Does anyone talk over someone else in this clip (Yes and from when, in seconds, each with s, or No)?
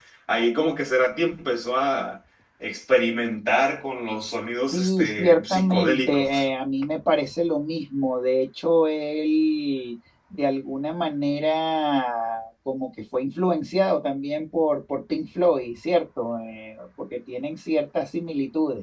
Yes, from 4.7 s